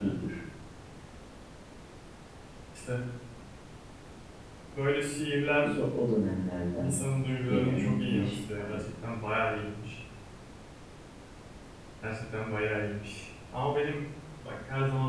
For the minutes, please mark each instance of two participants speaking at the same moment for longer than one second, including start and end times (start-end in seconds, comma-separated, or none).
7.5-8.8